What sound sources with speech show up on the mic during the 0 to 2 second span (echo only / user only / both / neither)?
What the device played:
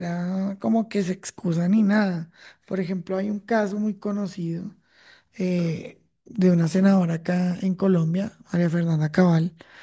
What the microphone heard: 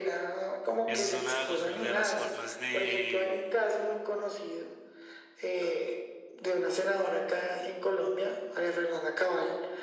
both